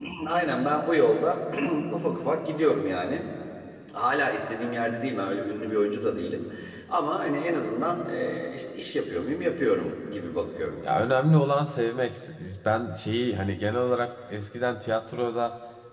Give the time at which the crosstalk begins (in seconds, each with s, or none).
none